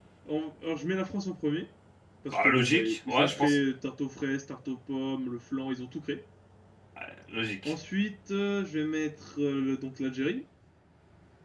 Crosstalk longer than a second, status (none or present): present